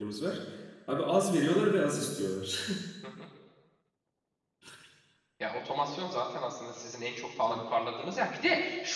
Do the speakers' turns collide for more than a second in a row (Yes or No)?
No